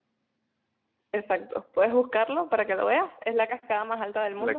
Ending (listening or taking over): taking over